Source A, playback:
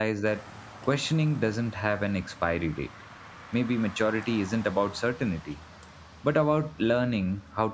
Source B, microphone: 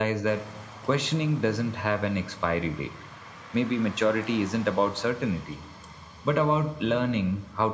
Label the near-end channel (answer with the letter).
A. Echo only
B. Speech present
A